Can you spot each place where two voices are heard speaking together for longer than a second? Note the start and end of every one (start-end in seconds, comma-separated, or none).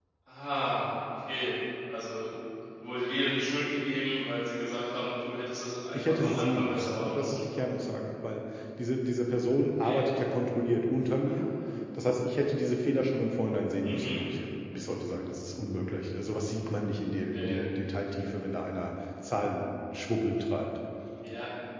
5.9-7.4